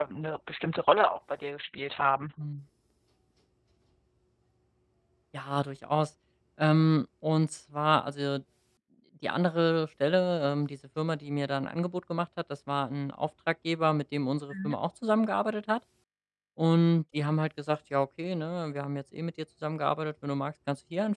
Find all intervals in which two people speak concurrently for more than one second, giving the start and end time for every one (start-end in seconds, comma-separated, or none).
none